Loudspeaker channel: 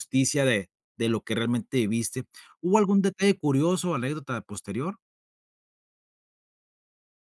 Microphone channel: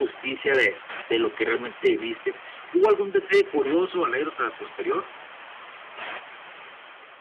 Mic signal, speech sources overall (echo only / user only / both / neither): echo only